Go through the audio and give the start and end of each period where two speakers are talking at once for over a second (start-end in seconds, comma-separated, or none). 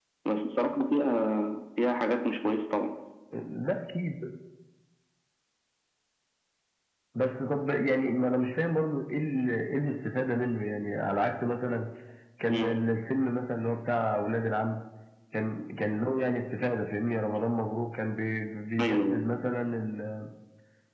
none